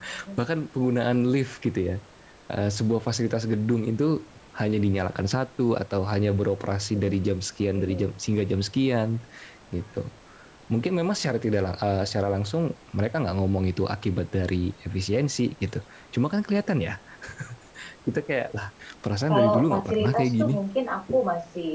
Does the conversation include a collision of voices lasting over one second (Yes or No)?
Yes